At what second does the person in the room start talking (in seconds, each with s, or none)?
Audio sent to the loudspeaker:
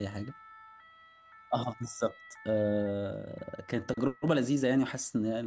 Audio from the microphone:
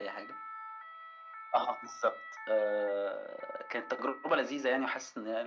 none